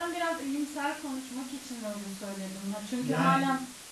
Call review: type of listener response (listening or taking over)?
listening